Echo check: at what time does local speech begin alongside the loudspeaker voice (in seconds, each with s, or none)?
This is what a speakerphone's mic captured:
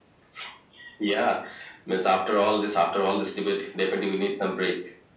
none